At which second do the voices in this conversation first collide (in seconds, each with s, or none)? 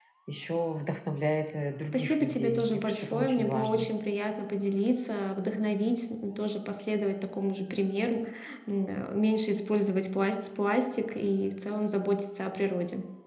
1.9 s